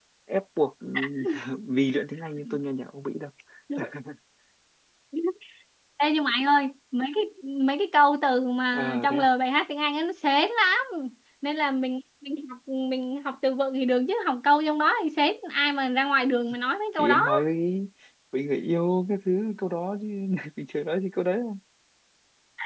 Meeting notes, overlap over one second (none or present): none